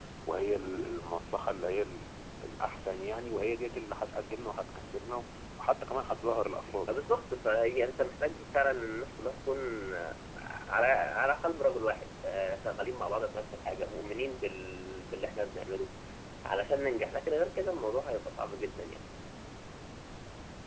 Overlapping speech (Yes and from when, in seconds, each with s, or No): No